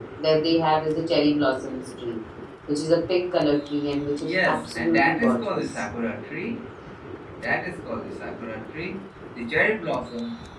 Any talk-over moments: Yes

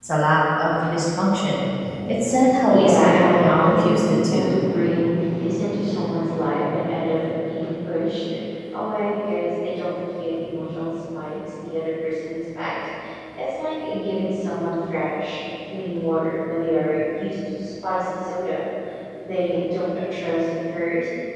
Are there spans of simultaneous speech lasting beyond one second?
Yes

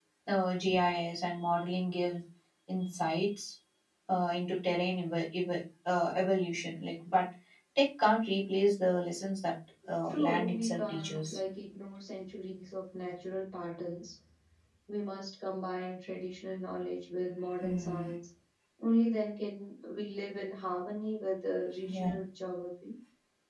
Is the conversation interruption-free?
No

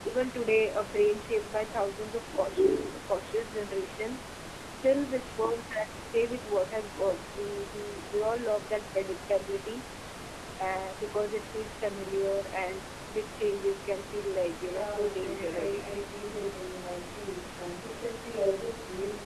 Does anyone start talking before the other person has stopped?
Yes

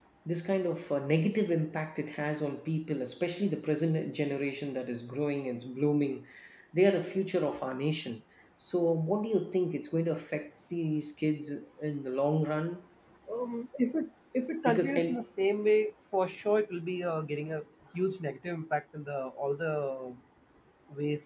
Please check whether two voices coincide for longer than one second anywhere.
No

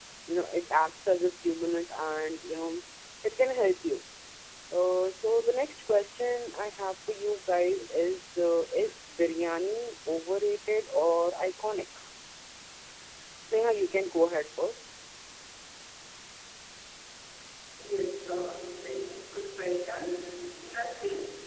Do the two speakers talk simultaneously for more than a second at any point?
No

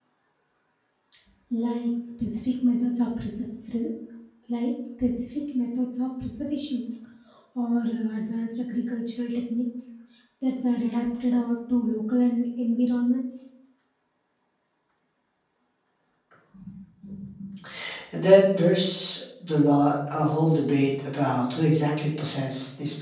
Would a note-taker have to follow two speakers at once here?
No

